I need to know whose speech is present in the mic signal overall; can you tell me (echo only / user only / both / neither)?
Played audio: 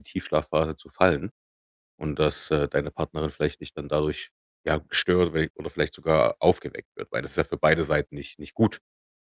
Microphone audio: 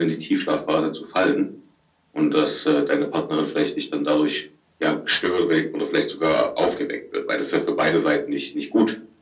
echo only